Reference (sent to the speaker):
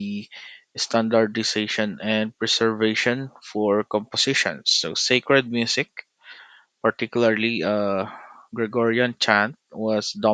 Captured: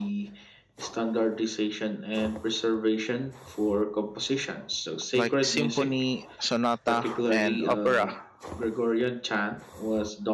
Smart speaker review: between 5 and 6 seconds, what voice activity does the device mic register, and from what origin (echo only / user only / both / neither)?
both